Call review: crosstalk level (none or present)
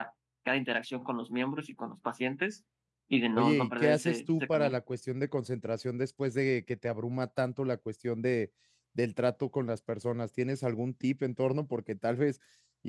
present